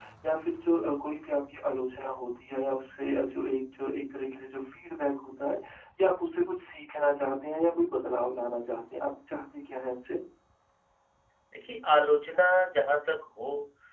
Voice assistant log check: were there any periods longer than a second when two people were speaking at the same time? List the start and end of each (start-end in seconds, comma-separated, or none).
none